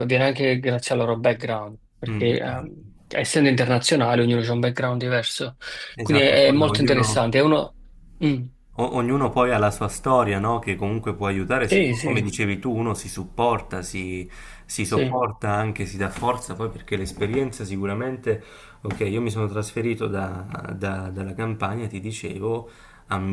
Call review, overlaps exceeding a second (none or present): present